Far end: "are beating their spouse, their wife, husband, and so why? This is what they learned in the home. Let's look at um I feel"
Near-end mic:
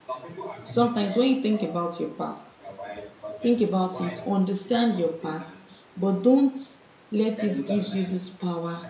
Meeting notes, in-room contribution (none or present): present